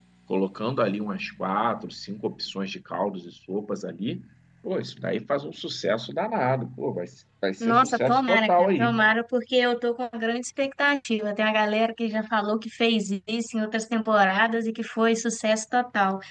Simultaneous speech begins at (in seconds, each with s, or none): 7.6 s